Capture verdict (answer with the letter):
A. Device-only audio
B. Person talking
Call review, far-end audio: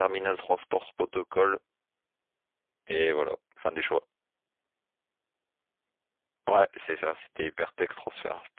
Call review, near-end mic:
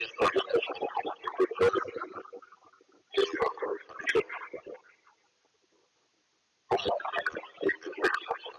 A